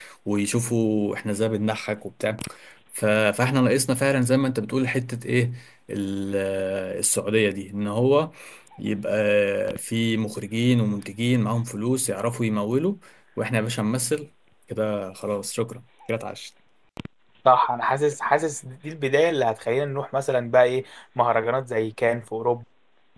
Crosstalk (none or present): none